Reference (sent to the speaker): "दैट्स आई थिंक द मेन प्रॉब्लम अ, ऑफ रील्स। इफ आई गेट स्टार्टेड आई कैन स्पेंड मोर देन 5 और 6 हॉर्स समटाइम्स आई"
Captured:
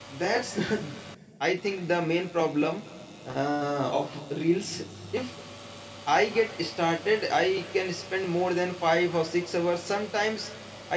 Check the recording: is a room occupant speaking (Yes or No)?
No